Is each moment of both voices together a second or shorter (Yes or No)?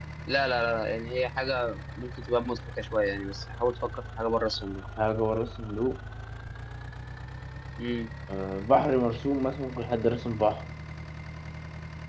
Yes